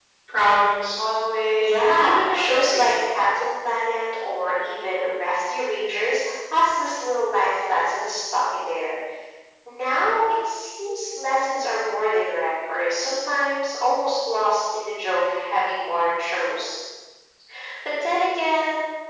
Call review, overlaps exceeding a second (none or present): present